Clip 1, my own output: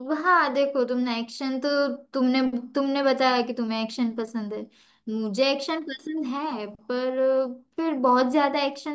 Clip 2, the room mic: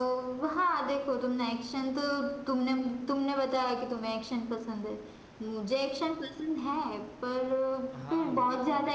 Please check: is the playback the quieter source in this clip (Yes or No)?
No